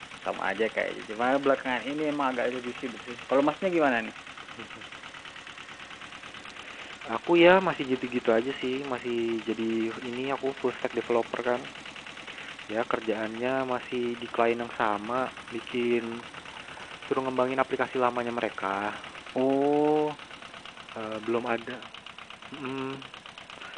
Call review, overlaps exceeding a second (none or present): none